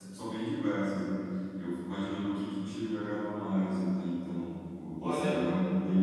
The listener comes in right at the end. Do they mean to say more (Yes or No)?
No